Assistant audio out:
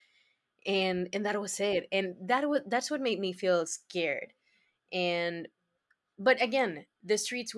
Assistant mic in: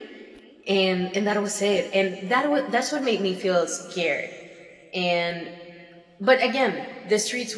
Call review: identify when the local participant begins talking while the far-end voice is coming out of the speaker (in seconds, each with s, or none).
none